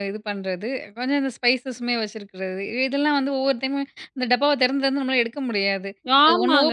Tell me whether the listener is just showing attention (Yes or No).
No